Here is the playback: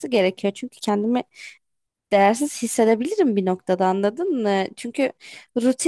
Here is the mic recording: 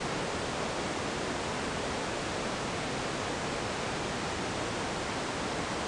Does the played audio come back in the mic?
No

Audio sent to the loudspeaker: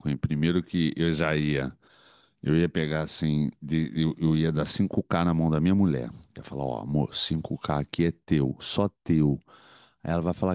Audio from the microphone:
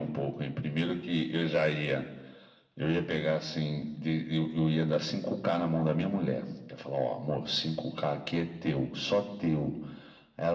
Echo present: Yes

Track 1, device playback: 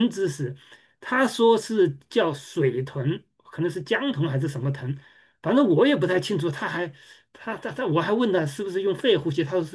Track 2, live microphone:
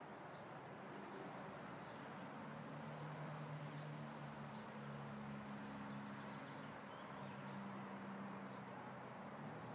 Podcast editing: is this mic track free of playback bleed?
Yes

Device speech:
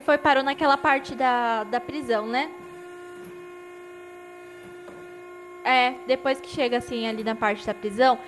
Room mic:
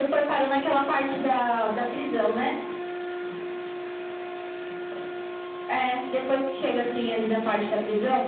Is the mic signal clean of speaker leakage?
No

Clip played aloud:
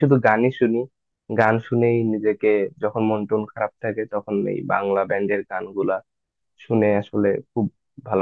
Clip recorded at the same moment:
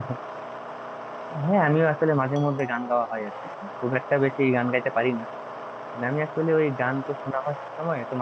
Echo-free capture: Yes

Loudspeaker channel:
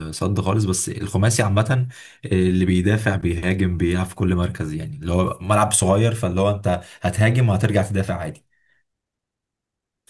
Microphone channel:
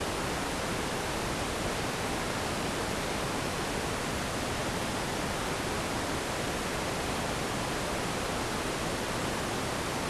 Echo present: No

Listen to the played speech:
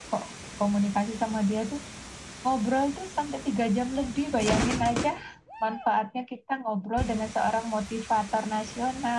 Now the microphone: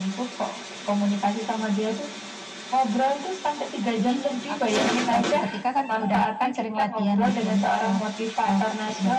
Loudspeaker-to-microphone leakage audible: Yes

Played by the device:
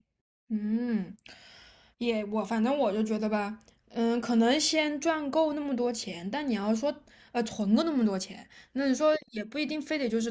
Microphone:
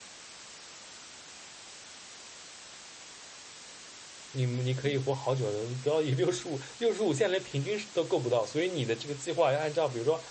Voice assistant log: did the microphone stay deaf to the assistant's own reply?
Yes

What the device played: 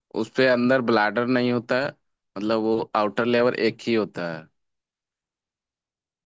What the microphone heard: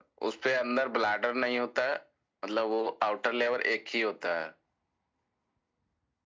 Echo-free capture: No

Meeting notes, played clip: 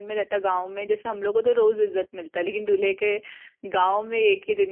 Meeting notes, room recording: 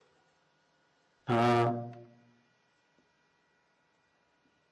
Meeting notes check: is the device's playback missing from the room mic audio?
Yes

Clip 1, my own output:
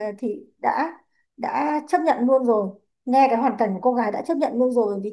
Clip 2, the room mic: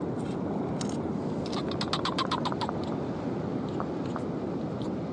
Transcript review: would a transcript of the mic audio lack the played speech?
Yes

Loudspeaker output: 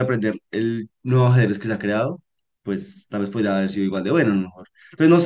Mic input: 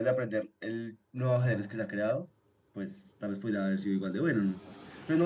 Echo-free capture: No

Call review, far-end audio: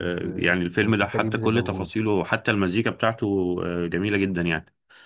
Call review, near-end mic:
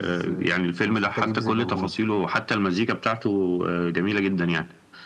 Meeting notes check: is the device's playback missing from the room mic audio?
No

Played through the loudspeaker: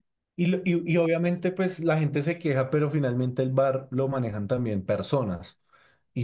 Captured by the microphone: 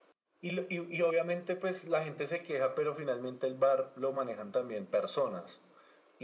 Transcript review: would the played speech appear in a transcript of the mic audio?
Yes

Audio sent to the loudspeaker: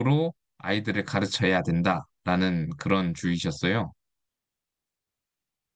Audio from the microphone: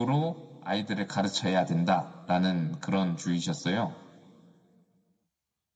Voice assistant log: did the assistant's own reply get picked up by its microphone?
Yes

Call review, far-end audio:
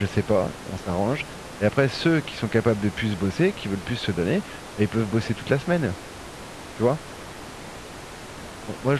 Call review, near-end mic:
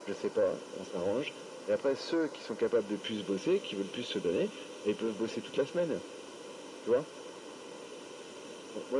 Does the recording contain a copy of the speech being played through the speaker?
Yes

